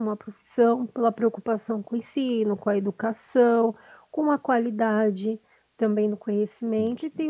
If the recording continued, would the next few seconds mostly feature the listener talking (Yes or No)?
No